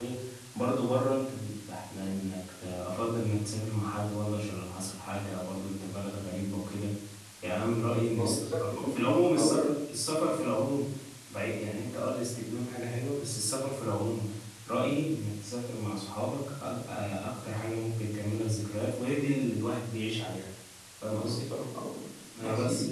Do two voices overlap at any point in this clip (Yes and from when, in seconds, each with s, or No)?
Yes, from 8.2 s